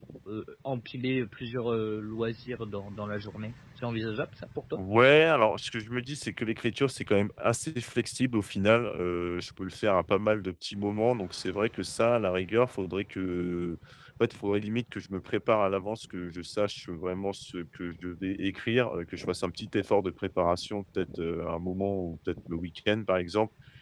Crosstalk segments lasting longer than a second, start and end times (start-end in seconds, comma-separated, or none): none